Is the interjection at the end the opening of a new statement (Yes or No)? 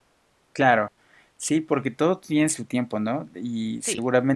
No